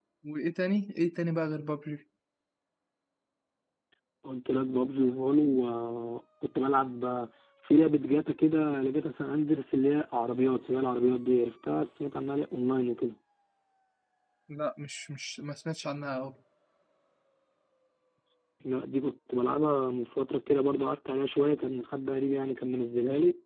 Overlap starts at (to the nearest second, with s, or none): none